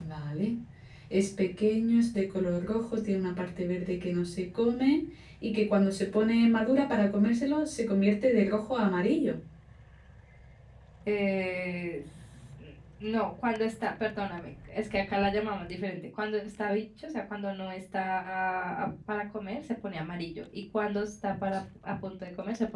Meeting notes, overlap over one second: none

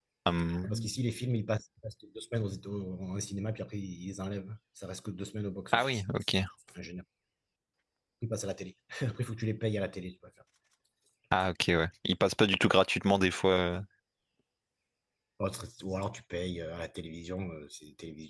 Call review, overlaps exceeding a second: none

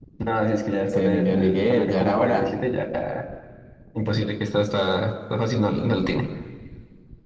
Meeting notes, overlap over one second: present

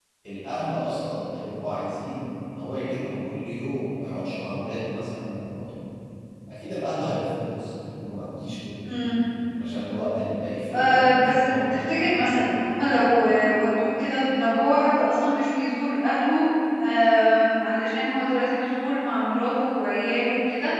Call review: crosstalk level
present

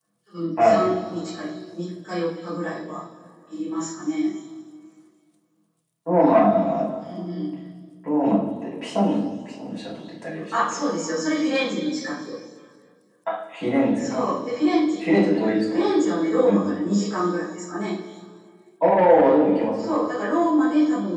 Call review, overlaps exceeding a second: none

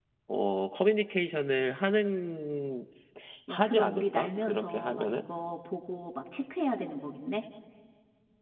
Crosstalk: present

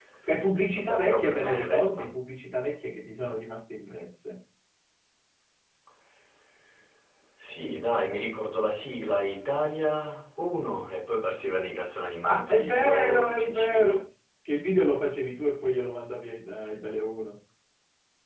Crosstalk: present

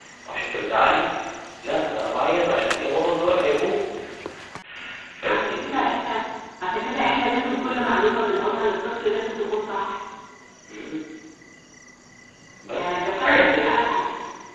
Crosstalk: present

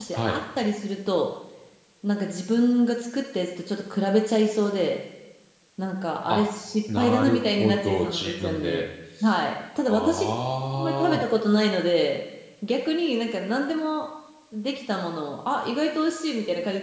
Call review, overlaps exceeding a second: present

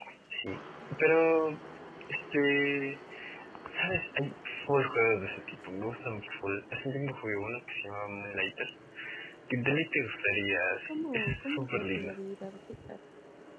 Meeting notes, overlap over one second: present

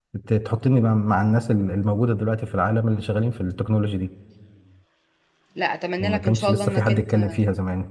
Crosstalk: present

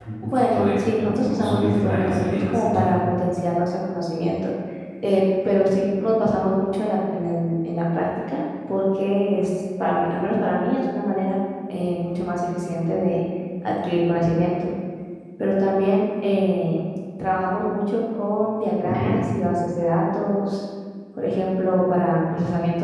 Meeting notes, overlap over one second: present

